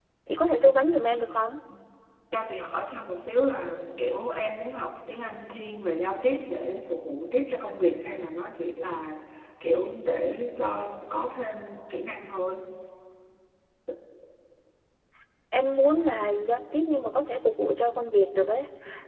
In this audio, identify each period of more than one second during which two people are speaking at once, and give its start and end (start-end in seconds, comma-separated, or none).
none